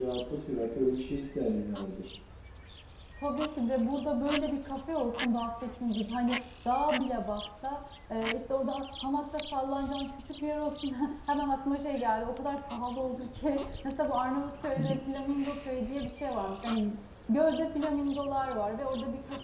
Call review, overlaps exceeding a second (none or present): none